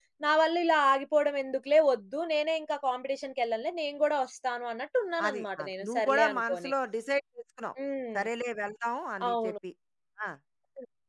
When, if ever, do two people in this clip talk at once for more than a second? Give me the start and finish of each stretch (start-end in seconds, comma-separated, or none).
5.3-6.7